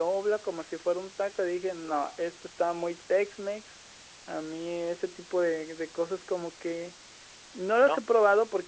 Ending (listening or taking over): listening